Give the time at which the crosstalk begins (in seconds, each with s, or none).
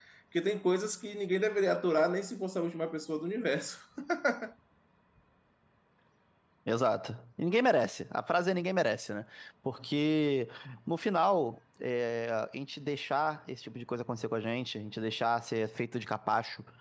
none